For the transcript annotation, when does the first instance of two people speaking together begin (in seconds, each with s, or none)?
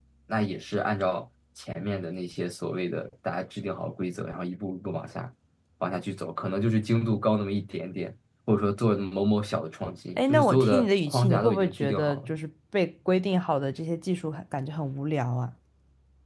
10.2 s